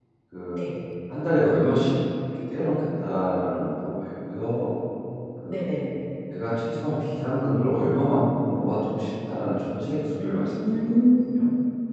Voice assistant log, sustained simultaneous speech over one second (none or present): present